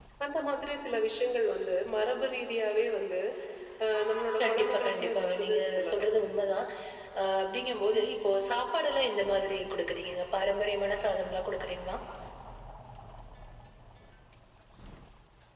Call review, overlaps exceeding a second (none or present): present